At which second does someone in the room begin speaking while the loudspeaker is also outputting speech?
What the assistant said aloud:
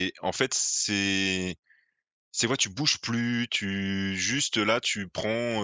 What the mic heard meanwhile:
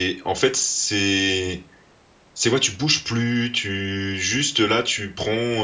none

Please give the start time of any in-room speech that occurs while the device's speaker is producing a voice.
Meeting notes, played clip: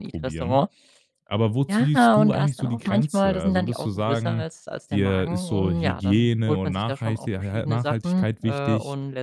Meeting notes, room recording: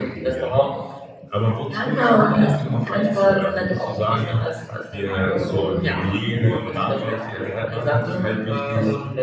none

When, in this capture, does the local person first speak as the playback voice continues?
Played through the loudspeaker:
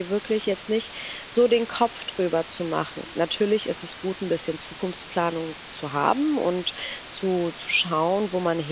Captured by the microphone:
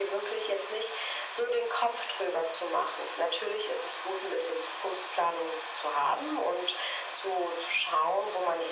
none

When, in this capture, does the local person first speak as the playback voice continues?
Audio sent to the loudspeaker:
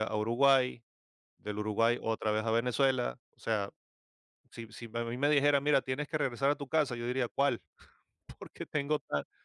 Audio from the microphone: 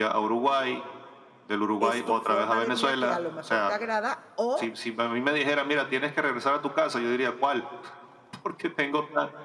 1.8 s

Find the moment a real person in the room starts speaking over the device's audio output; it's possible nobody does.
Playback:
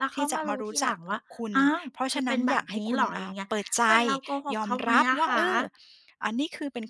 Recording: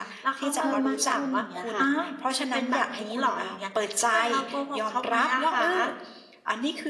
0.6 s

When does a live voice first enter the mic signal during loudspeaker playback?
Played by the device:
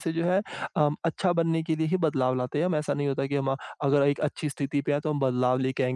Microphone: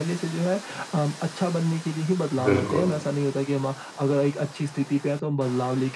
2.5 s

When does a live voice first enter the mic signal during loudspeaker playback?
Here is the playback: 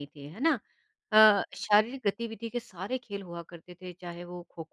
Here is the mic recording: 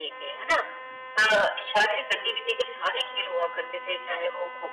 none

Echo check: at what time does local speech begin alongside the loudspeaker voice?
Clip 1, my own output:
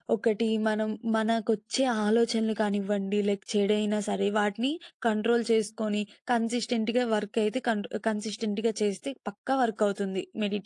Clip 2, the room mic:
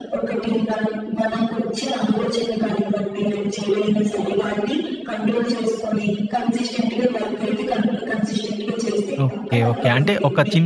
9.3 s

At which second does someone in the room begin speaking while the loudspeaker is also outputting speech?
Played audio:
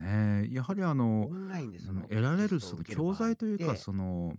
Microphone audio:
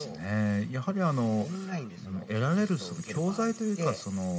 none

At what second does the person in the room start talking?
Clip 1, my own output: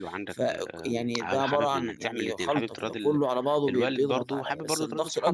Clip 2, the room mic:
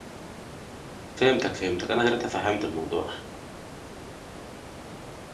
1.1 s

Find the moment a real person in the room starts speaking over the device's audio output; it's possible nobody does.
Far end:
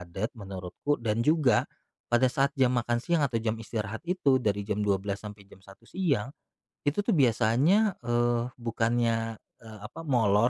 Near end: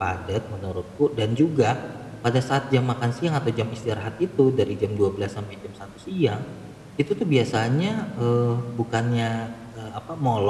none

